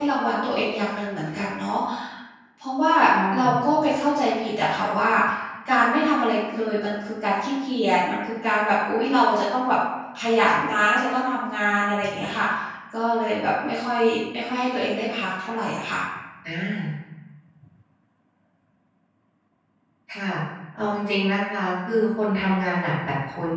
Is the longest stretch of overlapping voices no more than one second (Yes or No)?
Yes